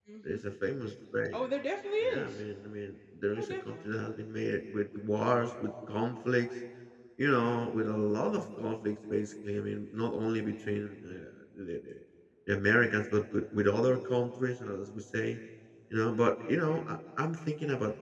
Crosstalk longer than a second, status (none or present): none